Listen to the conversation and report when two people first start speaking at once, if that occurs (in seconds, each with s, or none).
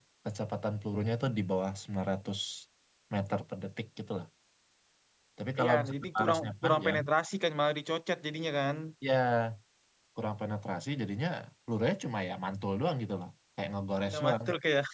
5.6 s